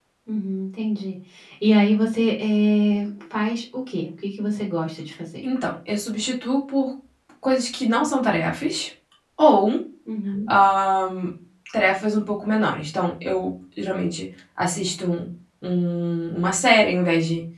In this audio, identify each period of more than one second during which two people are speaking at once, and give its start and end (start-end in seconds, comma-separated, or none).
none